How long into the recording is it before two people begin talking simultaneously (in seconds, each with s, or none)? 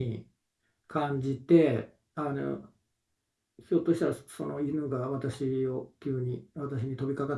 none